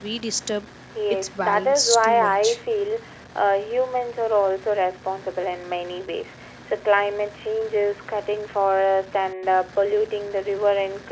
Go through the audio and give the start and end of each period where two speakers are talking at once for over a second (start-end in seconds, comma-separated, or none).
1.4-2.6